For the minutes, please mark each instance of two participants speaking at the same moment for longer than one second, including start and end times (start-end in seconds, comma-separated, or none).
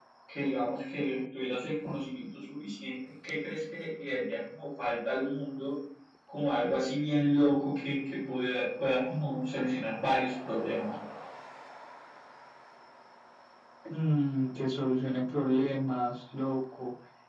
none